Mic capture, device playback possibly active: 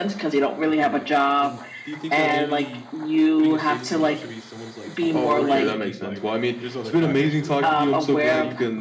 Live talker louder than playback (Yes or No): No